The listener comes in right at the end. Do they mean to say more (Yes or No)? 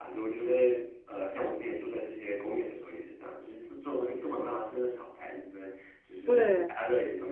No